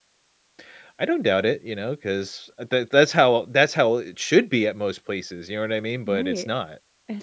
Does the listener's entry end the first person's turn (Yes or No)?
Yes